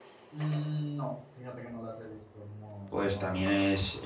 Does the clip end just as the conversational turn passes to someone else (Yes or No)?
Yes